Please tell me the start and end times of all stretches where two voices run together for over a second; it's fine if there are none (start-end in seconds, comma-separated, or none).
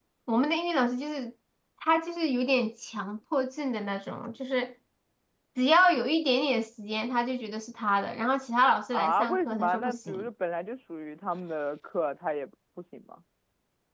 8.9-10.3